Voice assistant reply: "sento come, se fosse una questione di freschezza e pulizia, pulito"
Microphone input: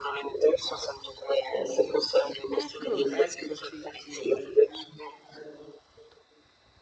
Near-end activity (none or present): present